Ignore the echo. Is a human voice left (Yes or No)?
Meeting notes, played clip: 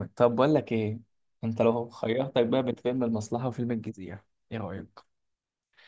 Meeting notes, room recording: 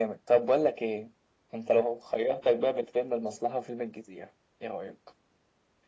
No